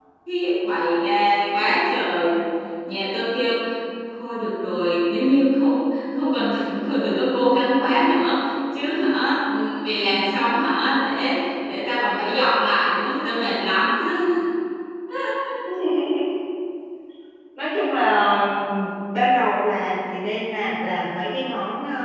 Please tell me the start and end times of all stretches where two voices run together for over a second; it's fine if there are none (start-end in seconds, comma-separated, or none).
none